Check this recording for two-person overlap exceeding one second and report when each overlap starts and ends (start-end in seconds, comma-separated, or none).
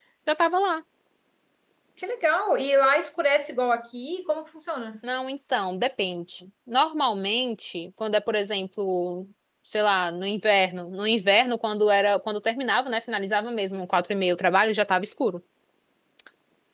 none